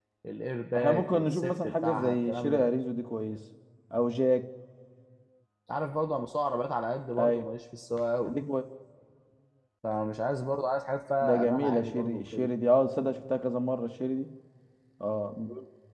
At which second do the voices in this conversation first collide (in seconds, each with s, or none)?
0.8 s